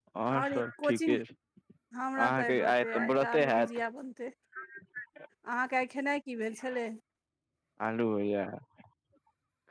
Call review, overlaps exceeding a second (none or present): present